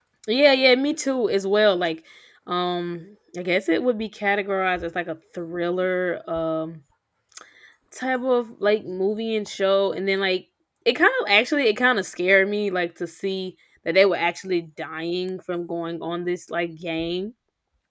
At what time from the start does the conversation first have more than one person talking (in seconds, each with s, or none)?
none